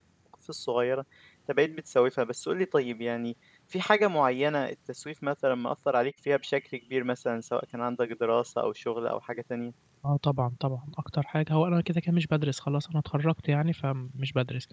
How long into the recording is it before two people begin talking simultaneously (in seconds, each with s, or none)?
none